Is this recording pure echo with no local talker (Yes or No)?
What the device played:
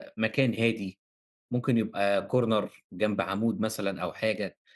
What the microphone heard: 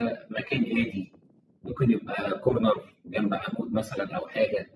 Yes